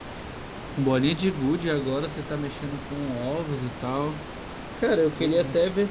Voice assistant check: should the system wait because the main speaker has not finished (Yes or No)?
Yes